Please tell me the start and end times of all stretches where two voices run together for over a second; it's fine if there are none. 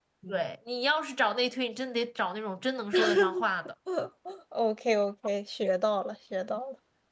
none

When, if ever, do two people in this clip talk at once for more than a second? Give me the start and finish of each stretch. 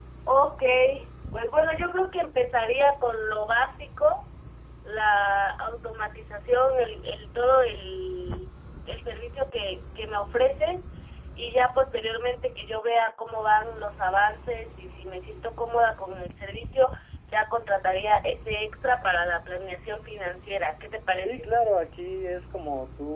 none

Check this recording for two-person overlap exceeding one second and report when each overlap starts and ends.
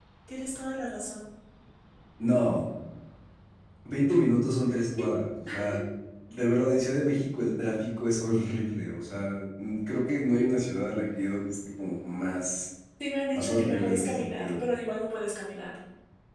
13.3-14.7

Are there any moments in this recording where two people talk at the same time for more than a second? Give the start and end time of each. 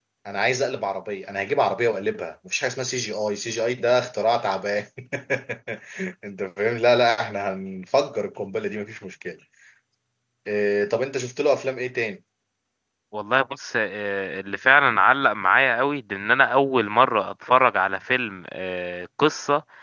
none

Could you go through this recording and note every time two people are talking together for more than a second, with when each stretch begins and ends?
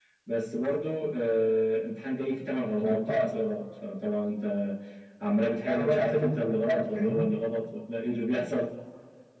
5.7-7.3

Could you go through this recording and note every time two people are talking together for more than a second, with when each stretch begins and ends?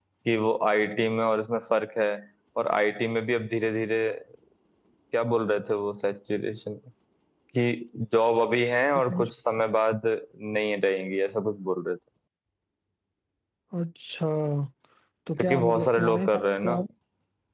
15.4-16.7

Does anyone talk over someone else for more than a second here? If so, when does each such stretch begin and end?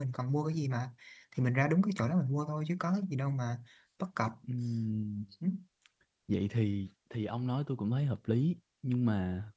none

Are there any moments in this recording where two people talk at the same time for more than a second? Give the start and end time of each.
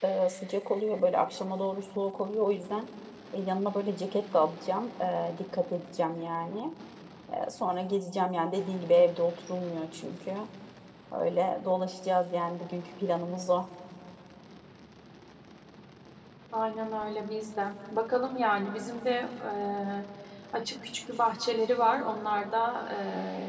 none

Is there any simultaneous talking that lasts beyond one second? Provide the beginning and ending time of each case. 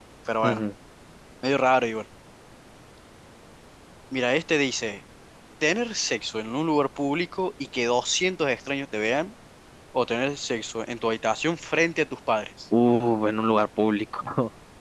none

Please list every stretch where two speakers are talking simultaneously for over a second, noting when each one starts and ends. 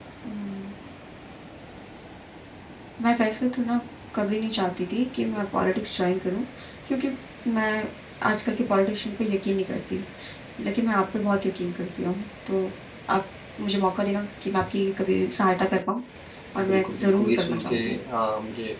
16.6-17.9

